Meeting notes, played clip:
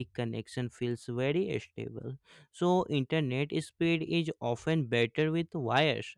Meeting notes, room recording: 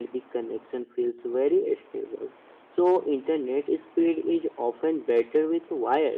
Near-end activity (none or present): none